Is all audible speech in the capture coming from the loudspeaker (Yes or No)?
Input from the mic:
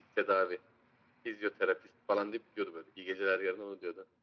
Yes